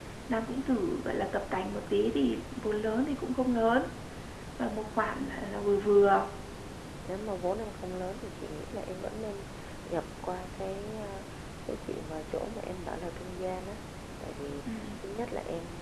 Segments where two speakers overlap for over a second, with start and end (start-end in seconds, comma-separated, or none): none